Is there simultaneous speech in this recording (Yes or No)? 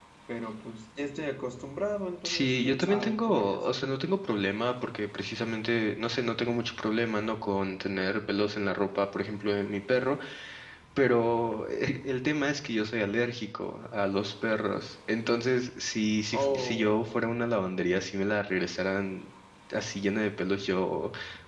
Yes